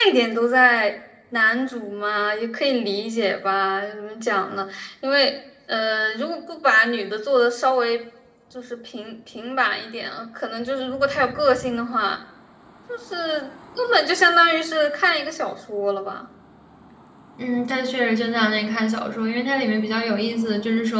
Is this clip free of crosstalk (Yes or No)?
Yes